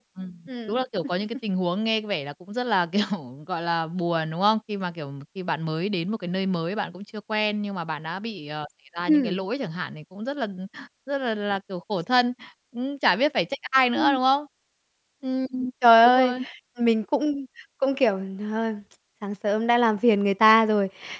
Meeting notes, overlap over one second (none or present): none